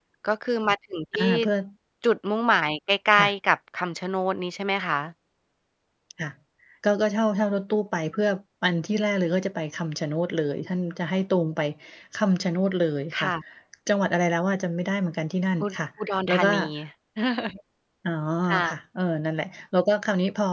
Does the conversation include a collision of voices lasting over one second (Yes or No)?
No